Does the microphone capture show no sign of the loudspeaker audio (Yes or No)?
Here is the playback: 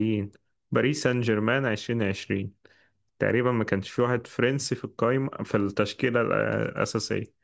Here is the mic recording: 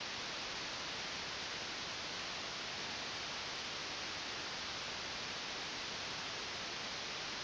Yes